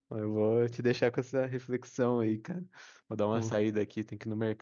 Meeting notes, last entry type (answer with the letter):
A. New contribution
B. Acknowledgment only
B